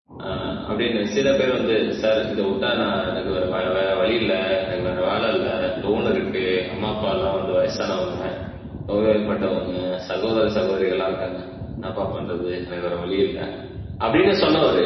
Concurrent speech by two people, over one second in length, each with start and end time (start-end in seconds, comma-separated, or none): none